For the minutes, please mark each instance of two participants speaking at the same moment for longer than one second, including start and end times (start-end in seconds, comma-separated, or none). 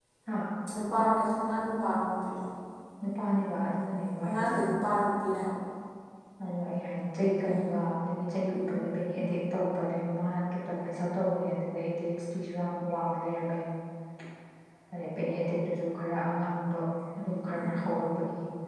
none